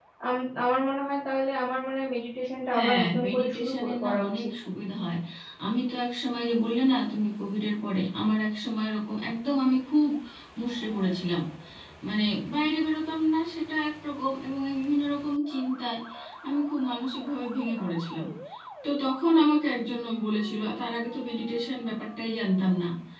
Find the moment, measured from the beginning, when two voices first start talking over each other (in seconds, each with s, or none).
2.7 s